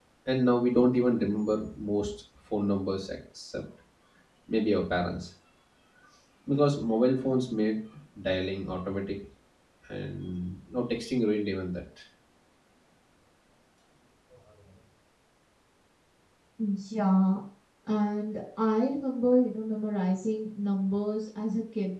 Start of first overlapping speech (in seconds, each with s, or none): none